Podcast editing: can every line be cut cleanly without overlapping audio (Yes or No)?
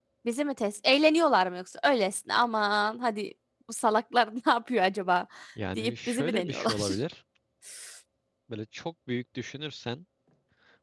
No